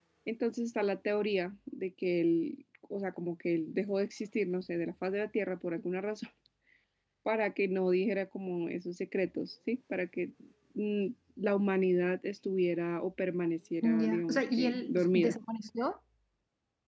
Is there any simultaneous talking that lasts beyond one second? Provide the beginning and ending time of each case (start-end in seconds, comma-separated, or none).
13.8-15.3